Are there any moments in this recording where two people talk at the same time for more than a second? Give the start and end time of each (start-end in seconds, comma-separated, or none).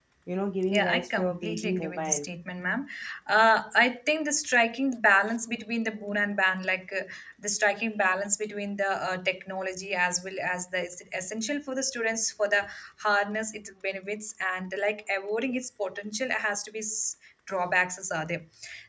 0.7-2.3